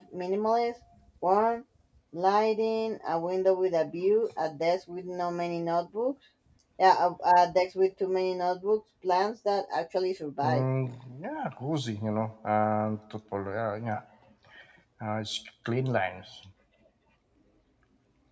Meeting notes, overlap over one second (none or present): none